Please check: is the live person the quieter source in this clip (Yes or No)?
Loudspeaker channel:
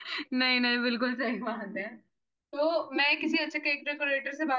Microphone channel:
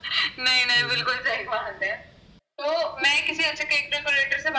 Yes